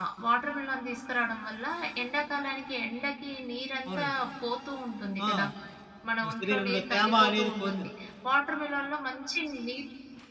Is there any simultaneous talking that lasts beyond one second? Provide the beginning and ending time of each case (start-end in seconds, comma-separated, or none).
6.4-7.9